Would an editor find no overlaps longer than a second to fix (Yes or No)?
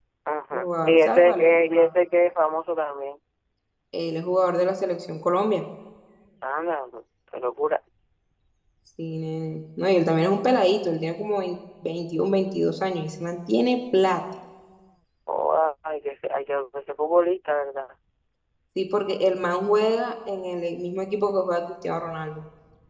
No